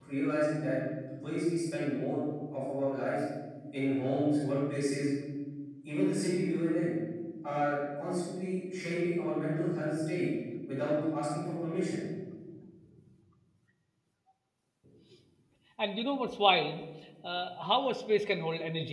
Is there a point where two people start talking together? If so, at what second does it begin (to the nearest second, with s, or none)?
none